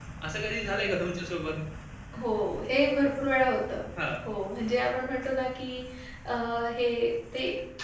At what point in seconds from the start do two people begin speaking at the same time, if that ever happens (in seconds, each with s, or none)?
none